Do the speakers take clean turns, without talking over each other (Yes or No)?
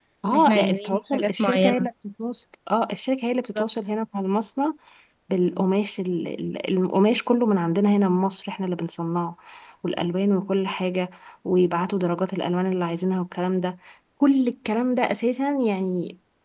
No